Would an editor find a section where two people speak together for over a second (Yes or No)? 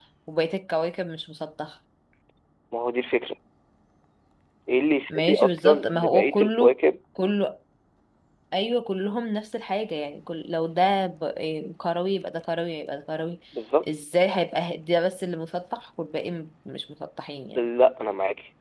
Yes